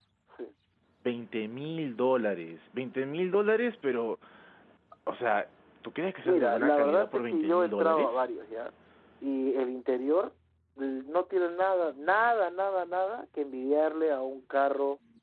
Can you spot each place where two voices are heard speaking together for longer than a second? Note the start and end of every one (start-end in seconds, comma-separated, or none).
6.2-8.3